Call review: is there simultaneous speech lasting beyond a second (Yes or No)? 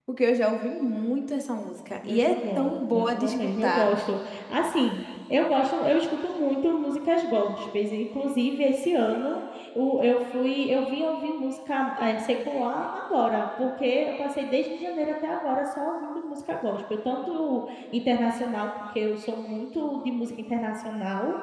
Yes